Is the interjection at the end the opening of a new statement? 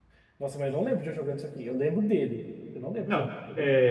Yes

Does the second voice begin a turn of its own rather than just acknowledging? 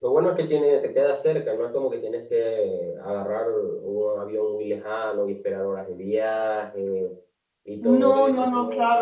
Yes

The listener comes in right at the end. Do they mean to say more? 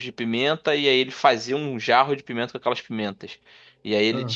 No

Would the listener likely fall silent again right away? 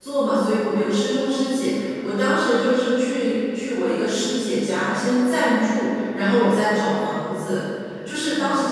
Yes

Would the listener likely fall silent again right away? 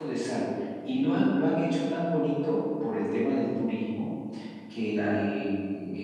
Yes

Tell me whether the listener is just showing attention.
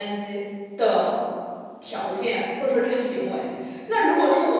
Yes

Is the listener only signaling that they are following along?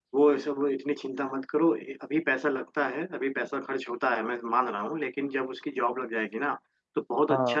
Yes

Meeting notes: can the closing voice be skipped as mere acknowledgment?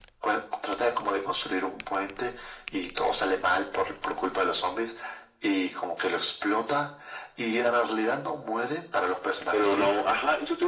No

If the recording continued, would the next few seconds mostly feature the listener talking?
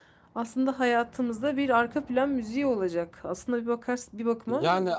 Yes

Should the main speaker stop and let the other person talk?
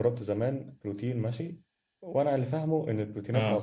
No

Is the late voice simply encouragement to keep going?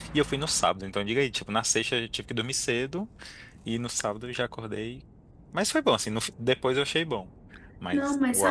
No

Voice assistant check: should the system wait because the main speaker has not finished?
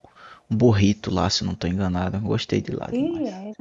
No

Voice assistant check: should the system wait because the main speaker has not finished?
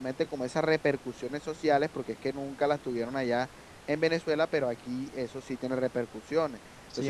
No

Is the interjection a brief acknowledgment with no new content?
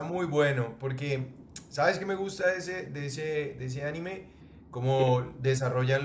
Yes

